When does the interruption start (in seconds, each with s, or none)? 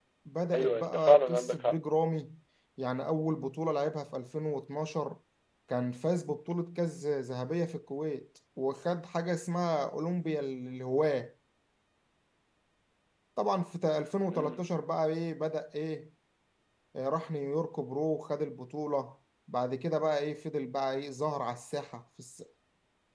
0.6 s